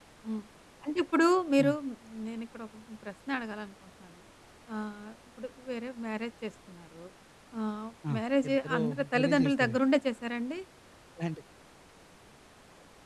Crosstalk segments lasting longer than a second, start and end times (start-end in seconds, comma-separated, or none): 8.5-9.8